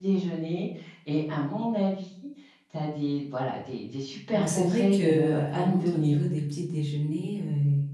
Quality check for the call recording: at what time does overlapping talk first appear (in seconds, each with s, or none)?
4.3 s